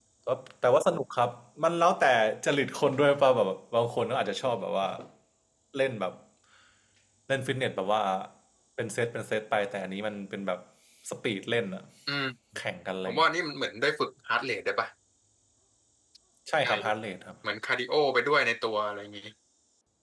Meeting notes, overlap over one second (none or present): none